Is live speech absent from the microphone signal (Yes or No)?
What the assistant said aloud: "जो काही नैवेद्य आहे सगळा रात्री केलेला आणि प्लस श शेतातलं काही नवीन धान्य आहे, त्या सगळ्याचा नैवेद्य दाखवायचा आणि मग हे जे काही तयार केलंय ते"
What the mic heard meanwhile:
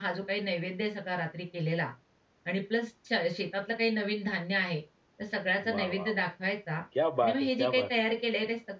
No